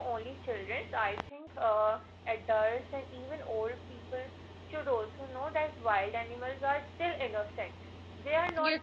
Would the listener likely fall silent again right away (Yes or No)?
No